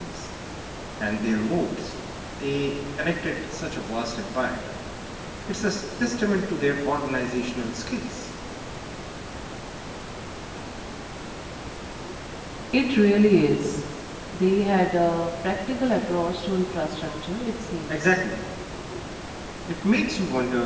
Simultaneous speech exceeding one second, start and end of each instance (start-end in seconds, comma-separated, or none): none